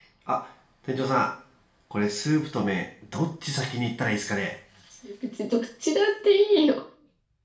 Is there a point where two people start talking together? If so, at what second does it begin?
none

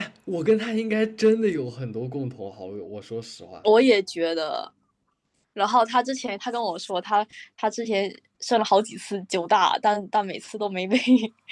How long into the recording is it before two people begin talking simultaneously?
none

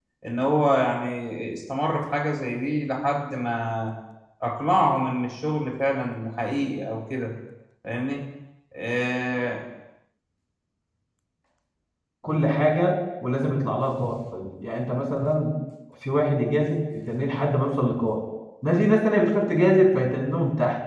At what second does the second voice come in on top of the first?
none

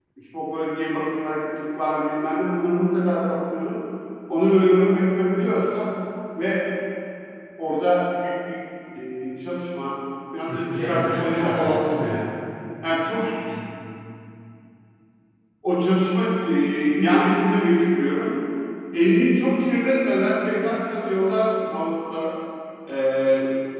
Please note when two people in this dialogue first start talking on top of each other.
10.5 s

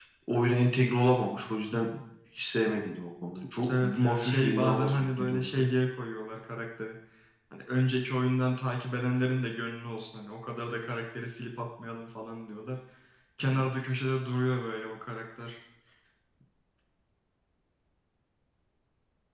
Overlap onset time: 3.6 s

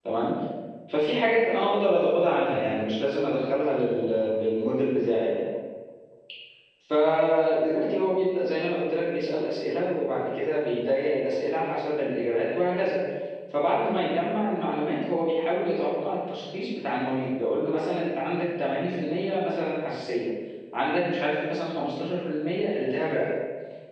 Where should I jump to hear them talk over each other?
none

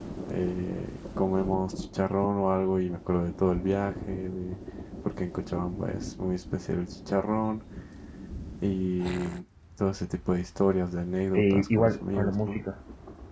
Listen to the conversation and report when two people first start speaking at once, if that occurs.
11.3 s

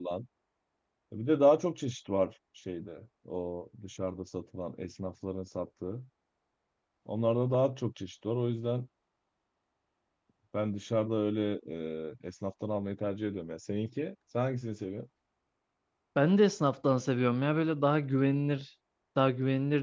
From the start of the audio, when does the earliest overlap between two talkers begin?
none

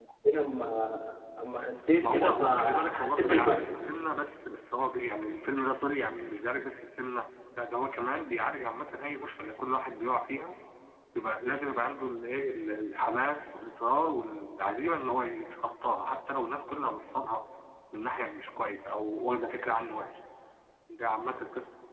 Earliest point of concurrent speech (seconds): 2.0 s

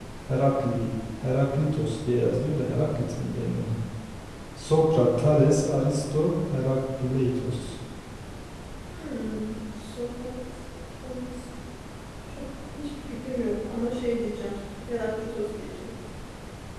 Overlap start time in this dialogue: none

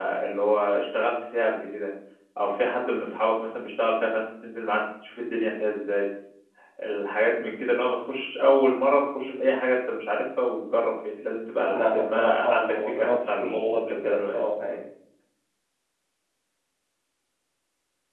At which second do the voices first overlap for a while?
11.7 s

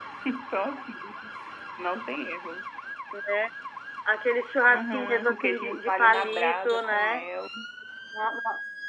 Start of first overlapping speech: 4.7 s

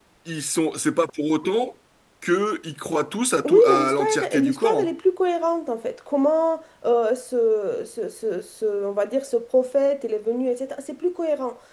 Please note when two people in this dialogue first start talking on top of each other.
3.4 s

